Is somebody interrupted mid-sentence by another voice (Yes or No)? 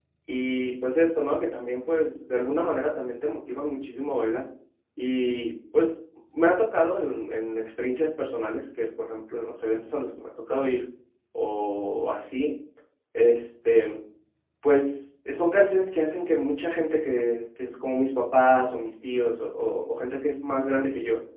No